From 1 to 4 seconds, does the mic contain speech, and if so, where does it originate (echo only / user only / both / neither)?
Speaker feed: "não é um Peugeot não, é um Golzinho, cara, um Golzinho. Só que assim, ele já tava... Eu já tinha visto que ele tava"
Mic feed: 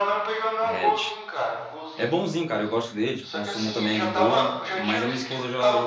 both